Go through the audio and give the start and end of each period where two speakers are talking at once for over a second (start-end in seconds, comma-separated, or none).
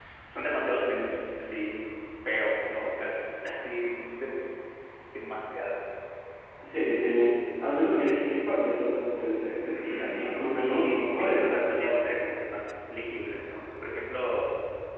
9.7-12.0